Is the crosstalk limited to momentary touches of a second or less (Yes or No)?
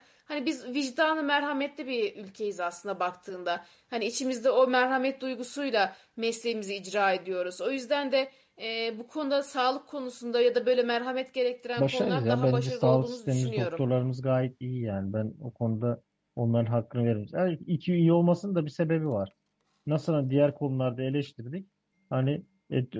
No